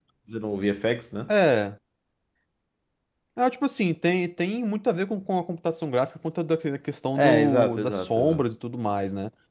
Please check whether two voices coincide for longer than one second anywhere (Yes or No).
Yes